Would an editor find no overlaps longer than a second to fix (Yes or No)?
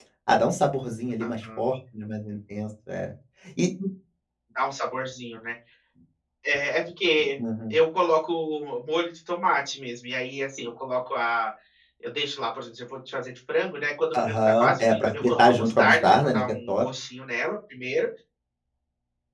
No